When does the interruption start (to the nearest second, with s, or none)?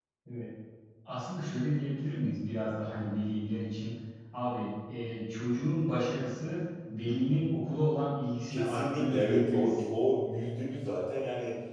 8 s